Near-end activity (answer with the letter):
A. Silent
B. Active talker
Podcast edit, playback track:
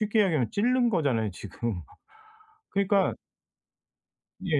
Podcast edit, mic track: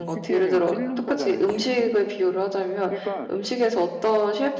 B